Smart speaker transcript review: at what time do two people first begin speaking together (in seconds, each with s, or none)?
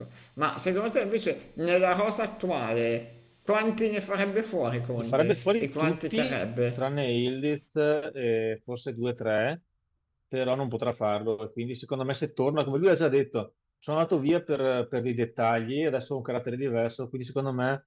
5.0 s